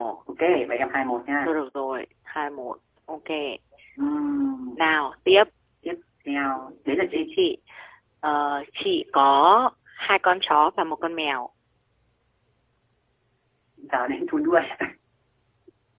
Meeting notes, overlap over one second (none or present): none